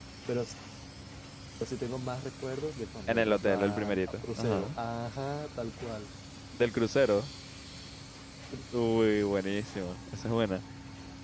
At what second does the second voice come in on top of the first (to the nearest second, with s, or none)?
3 s